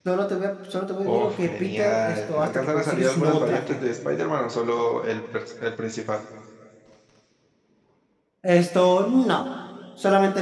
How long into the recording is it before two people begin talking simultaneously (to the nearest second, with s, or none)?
1 s